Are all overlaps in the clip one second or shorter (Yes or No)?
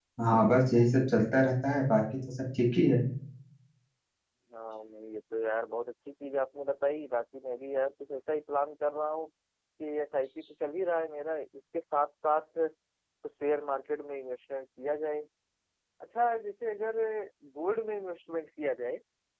Yes